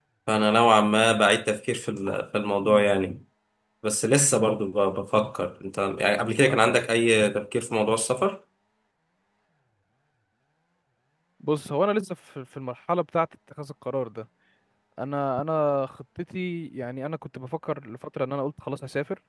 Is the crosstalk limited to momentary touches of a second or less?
Yes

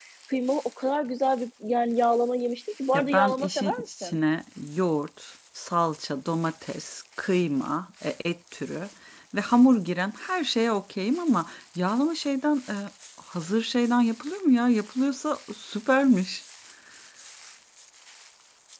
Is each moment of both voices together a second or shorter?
No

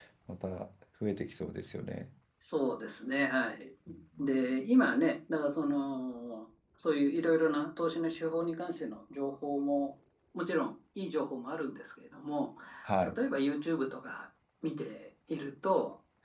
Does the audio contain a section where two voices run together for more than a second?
No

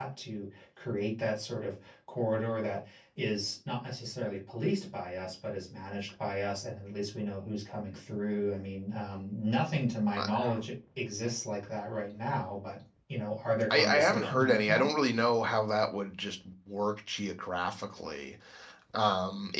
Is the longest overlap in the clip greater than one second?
Yes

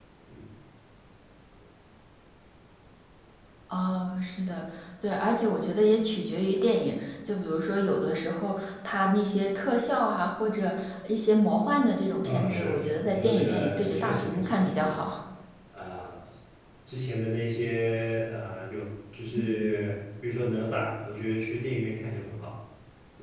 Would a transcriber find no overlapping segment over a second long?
No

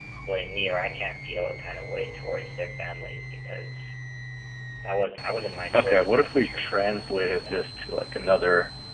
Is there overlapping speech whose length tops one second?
Yes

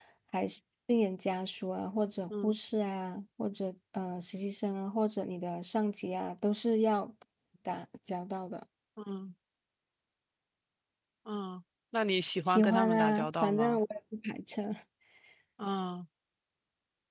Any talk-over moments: Yes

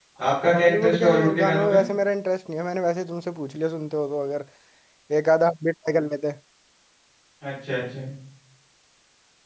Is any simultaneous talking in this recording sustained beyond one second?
Yes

